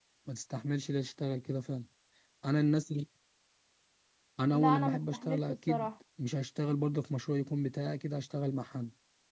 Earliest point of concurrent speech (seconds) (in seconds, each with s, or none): 4.5 s